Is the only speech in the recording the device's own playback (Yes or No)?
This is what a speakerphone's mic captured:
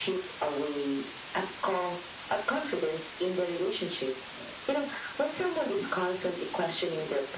Yes